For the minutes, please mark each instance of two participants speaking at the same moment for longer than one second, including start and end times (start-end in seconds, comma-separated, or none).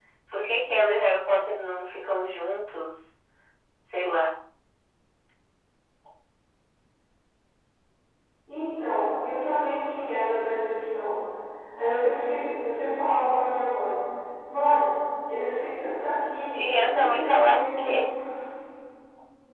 16.5-18.1